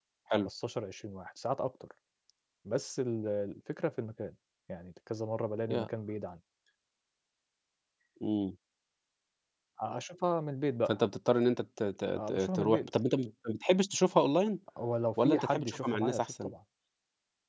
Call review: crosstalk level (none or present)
present